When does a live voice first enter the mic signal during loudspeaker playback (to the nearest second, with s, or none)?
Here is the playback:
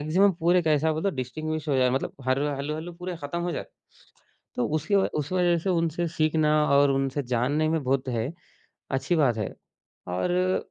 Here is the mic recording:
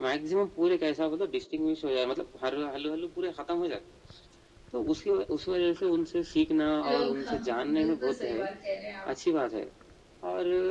7 s